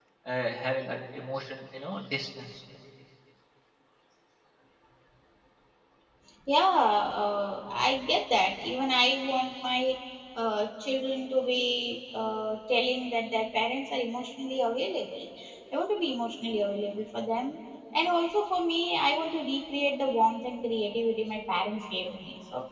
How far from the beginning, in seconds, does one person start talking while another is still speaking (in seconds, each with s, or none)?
none